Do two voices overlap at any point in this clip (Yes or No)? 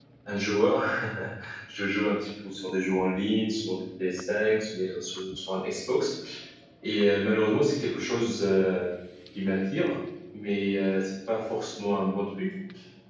No